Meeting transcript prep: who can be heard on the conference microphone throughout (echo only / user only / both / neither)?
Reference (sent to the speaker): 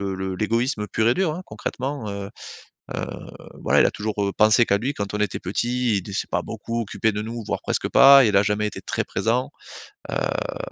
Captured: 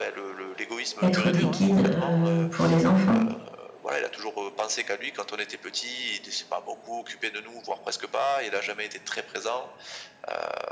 both